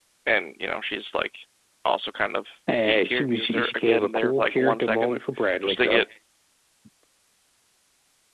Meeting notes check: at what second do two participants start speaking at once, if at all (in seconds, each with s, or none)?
2.9 s